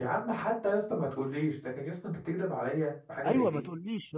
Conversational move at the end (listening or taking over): taking over